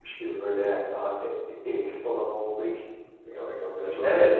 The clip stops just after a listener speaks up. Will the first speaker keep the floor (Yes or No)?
No